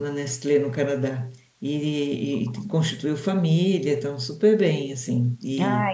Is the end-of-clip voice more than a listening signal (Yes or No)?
No